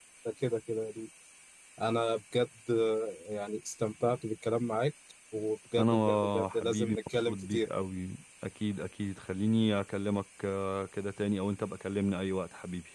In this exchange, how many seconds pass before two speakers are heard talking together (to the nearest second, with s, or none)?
6 s